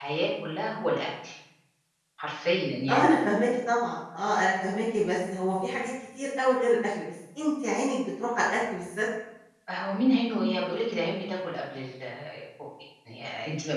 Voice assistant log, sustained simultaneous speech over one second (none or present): none